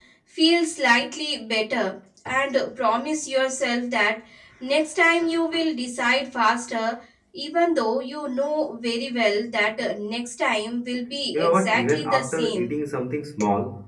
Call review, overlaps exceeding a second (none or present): present